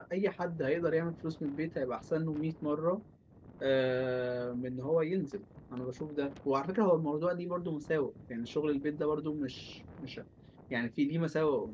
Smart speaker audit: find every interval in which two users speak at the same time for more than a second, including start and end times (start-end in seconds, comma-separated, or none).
none